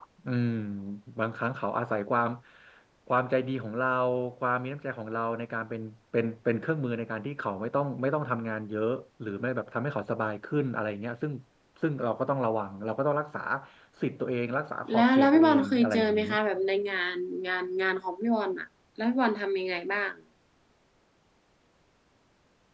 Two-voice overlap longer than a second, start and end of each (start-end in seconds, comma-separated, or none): 14.9-16.2